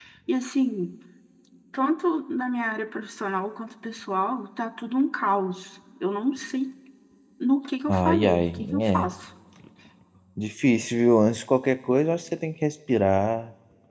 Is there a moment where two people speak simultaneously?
Yes, from 7.9 s

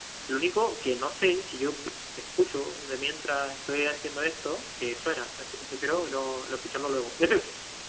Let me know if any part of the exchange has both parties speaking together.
No

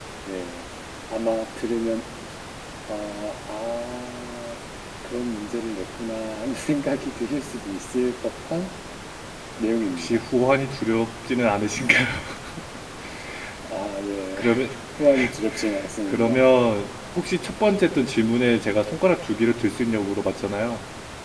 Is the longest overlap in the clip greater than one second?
No

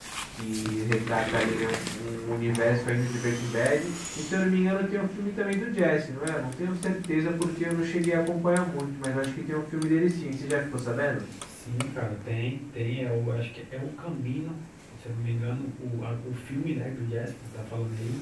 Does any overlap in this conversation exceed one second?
No

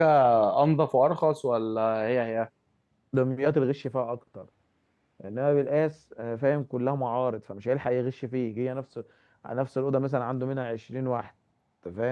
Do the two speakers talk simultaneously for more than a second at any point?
No

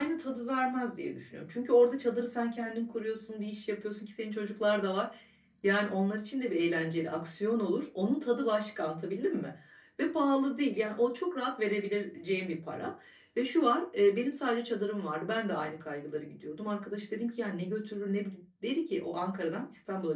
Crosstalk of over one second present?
No

